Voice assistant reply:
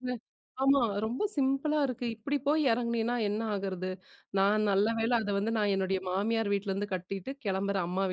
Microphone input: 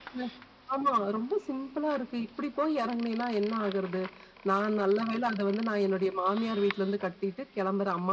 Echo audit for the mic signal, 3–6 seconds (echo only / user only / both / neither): echo only